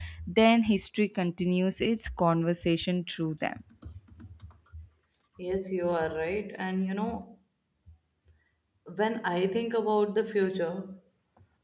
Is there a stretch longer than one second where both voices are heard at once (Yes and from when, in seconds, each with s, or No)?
No